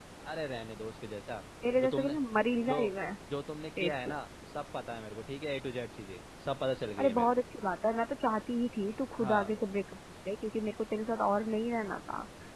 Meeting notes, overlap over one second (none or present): none